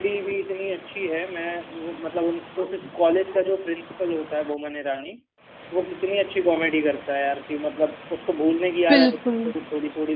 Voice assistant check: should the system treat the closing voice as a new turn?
No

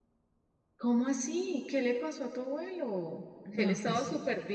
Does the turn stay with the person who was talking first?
Yes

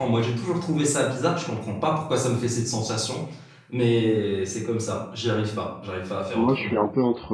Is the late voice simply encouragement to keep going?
No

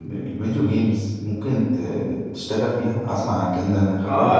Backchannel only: No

